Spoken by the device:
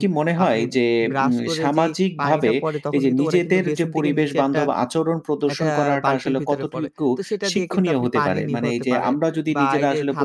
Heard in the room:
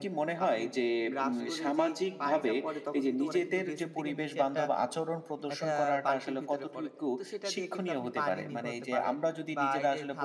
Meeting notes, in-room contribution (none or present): none